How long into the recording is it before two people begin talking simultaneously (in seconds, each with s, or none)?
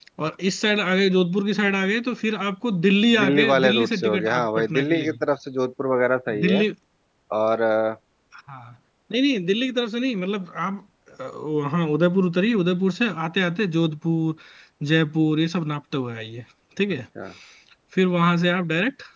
3.2 s